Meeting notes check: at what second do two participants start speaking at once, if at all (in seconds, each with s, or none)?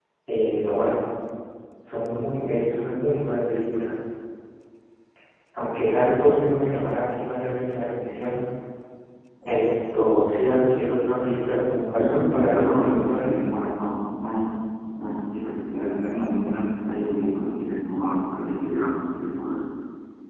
12.0 s